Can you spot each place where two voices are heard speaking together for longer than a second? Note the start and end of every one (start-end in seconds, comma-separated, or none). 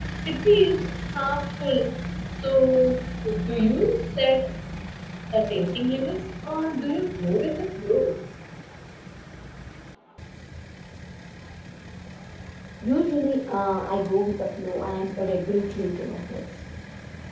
none